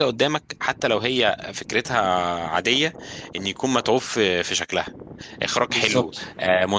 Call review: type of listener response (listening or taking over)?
listening